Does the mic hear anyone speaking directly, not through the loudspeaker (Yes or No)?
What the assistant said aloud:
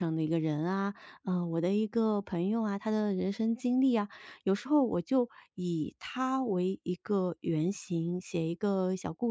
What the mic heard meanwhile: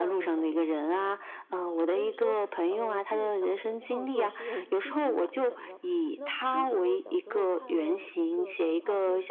Yes